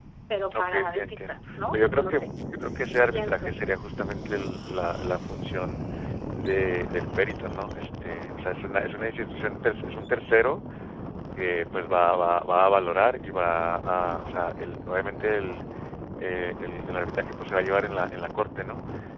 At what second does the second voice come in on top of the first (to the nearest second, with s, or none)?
1 s